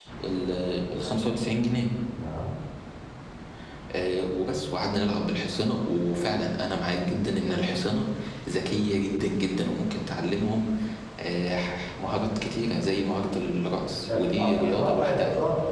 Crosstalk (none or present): present